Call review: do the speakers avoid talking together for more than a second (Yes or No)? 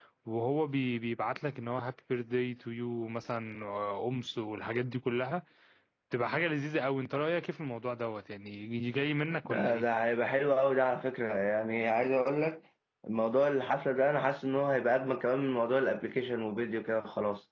Yes